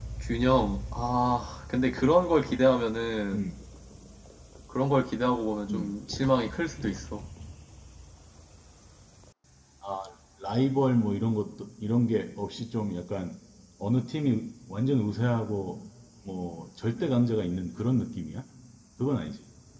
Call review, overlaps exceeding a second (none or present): none